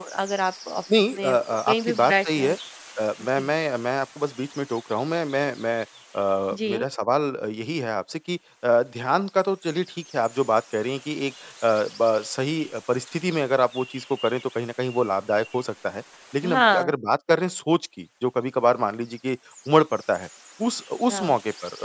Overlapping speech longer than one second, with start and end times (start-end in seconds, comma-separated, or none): 1.1-2.6